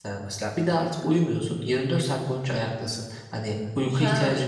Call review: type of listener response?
taking over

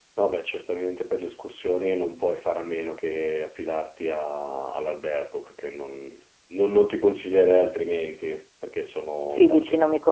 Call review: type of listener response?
taking over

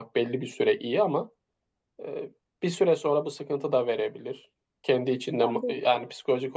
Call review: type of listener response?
listening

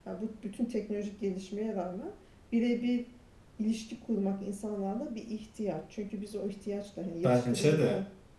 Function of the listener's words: listening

